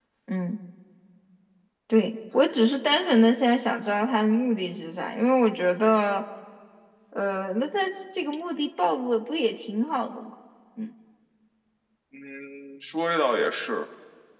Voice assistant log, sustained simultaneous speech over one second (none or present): none